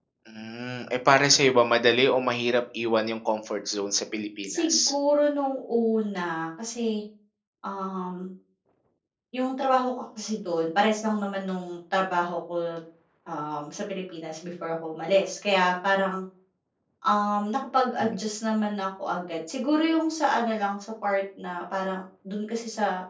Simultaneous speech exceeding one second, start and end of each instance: none

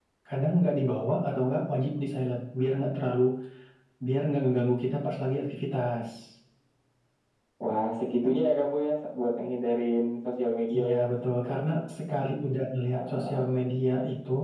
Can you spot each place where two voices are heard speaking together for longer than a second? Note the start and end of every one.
none

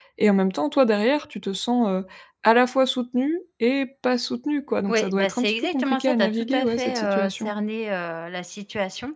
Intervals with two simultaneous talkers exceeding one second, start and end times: 4.9-7.5

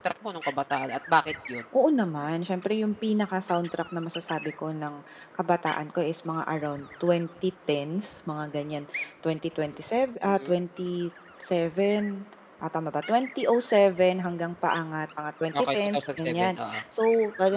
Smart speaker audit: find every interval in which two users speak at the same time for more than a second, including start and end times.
15.5-16.8

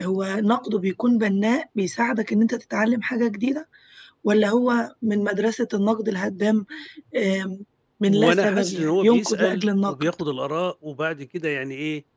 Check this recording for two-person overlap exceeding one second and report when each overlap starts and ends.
8.1-9.9

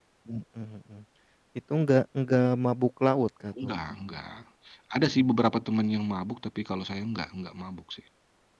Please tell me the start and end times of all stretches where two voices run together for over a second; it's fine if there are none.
none

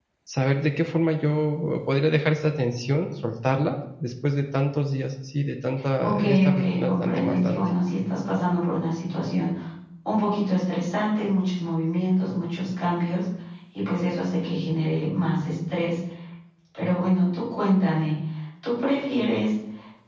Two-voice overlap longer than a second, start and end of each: 6.0-7.6

